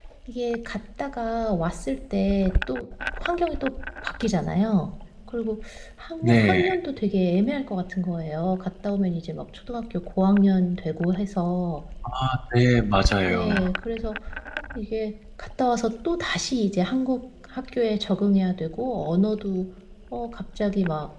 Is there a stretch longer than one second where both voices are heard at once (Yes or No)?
No